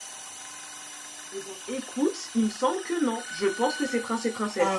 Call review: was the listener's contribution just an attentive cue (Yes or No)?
Yes